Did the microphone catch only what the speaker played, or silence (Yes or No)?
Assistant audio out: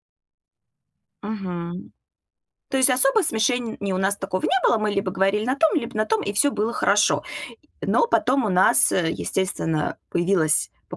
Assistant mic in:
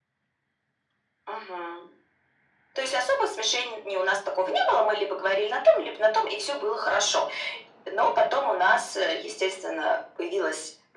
Yes